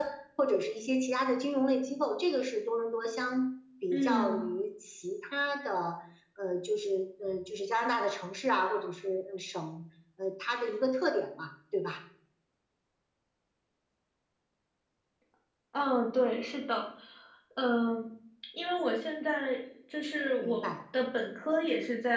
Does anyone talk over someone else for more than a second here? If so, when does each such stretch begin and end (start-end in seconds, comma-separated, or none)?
none